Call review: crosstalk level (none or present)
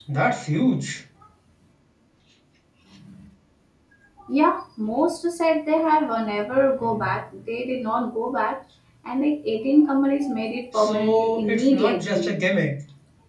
present